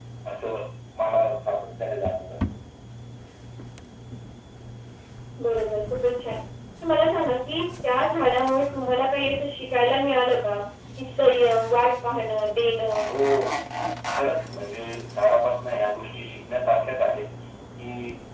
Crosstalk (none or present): none